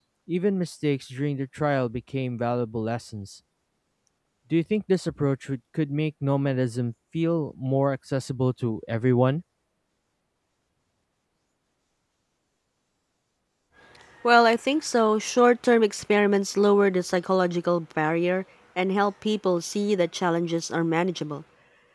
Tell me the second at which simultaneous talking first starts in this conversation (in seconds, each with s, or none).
none